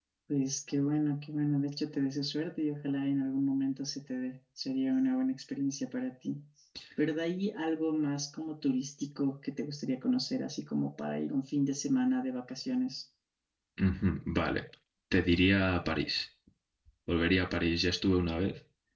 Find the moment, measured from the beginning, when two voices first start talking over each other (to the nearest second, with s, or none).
none